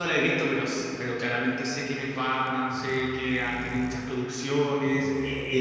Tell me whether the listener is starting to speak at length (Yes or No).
Yes